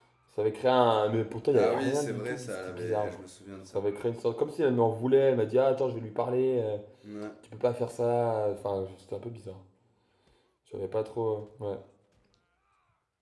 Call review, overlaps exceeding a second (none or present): present